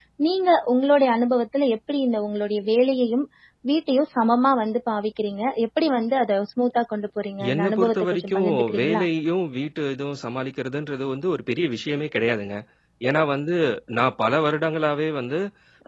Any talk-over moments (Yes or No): Yes